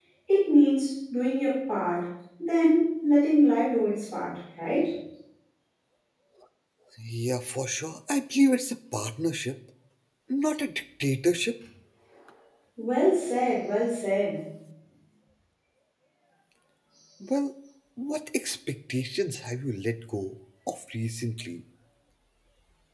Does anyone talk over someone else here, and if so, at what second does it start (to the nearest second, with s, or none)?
none